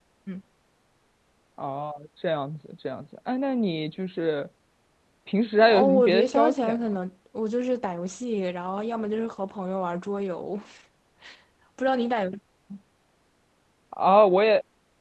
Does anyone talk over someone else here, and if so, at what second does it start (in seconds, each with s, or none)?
5.7 s